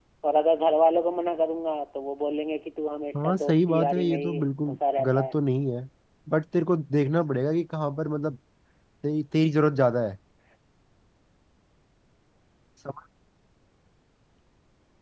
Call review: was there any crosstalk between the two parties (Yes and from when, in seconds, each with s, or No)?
Yes, from 3.1 s